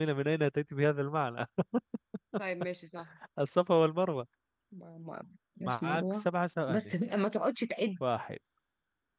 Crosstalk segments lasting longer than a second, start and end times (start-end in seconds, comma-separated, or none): none